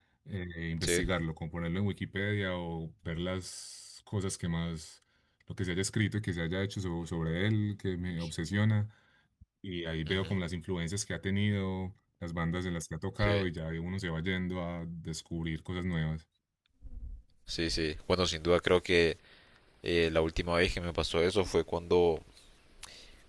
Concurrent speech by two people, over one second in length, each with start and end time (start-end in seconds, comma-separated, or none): none